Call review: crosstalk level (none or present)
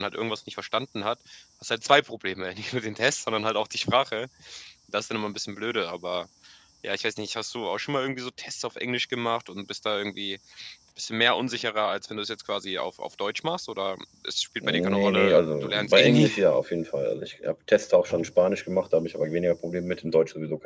present